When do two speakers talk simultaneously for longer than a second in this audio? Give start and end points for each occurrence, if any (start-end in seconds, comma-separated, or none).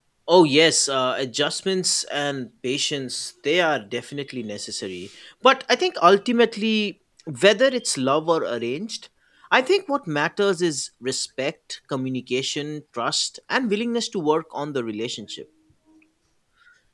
none